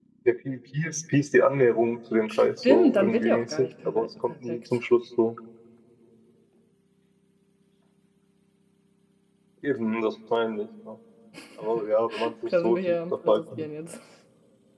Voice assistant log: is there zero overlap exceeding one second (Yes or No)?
No